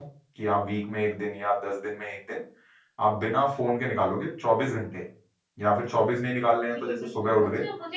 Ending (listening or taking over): taking over